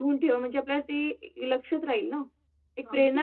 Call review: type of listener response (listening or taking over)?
listening